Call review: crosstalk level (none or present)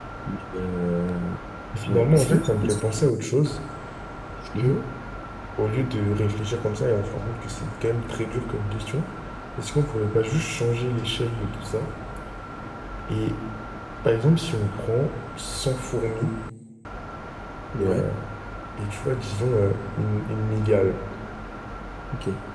present